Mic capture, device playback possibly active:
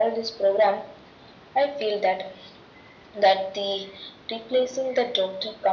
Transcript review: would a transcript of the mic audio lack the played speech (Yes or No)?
No